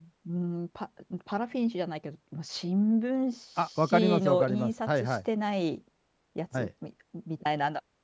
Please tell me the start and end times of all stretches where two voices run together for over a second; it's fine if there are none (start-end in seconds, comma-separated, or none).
3.8-5.2